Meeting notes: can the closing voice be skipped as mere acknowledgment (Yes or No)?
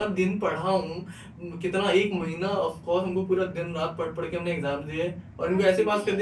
No